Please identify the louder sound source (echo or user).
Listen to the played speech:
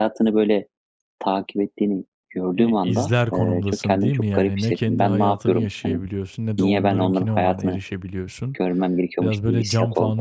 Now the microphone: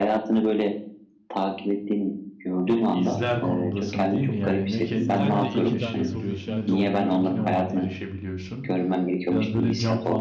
echo